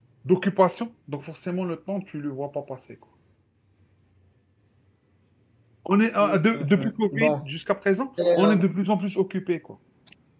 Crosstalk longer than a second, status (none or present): present